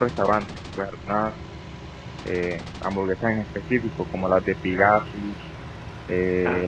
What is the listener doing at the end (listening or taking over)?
listening